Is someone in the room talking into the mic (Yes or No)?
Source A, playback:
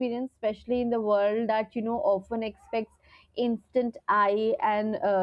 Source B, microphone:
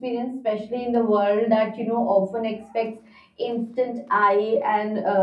No